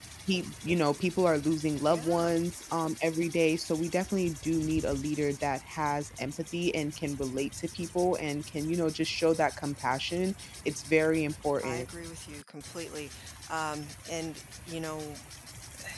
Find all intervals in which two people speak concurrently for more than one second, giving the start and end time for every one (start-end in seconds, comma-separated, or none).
none